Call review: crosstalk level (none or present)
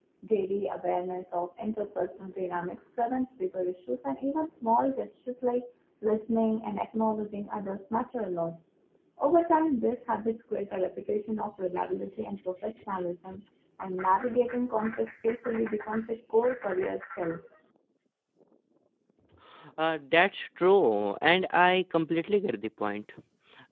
none